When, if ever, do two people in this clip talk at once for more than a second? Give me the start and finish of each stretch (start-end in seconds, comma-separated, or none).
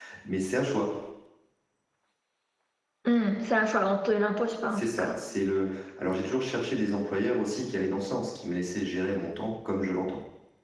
none